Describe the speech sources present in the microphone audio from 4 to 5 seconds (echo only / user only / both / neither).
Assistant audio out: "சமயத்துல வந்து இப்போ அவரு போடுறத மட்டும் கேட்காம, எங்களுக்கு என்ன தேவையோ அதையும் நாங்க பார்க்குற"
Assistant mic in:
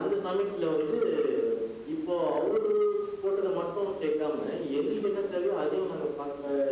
echo only